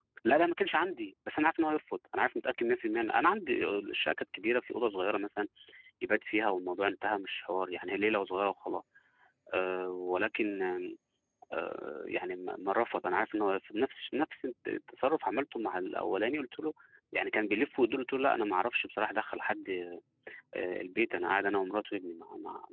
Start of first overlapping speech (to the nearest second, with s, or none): none